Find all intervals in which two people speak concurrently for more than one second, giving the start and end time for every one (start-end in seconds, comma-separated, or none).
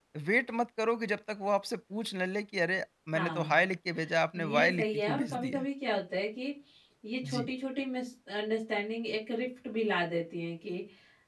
4.3-5.7